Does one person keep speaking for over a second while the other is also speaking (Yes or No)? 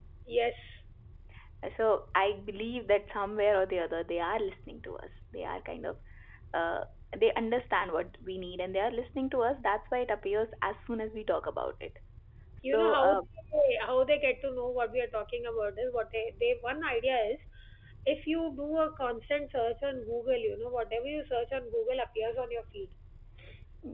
No